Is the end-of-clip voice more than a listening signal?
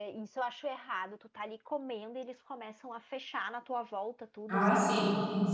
Yes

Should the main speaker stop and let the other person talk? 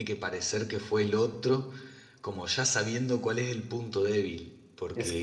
No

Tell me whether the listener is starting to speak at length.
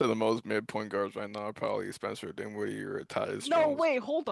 Yes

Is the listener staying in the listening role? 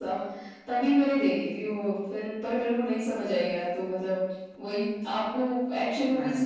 Yes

